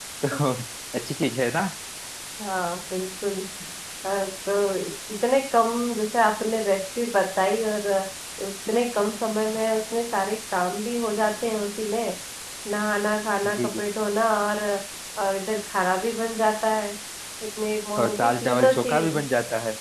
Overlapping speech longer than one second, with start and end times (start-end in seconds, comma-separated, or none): 18.0-19.2